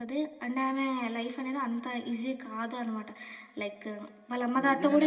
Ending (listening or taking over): taking over